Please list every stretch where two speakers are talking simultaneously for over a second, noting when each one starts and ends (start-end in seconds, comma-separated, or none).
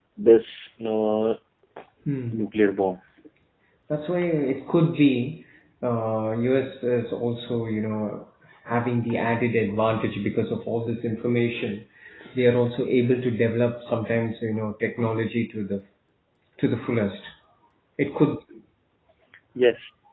none